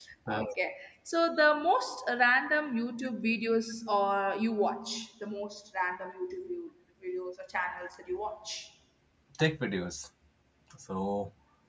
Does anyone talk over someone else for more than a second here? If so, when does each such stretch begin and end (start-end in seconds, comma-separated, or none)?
none